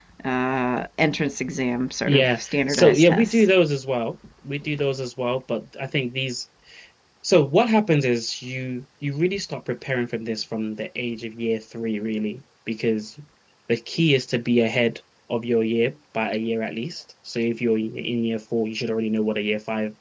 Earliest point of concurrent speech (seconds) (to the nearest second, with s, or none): 2 s